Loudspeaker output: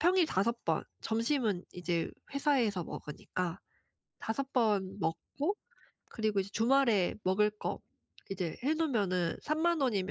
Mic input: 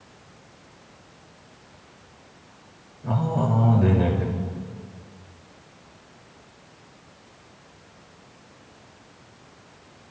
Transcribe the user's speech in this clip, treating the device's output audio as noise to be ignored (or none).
아아. 네네네.